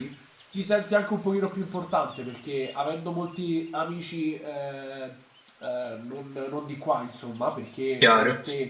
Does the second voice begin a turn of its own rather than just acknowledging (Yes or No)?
No